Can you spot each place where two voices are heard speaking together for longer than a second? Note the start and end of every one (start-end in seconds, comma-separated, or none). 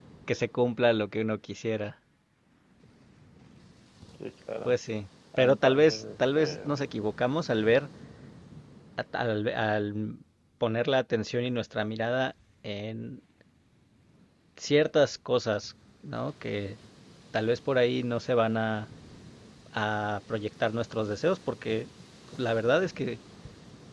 5.4-6.6